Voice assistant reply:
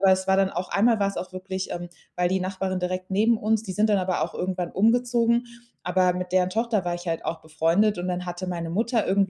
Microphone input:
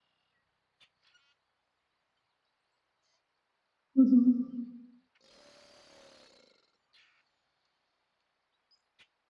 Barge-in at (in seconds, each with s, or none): 3.9 s